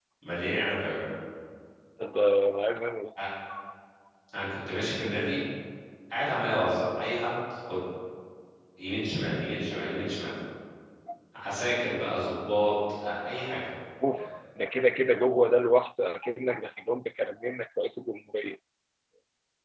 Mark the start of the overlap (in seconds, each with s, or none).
none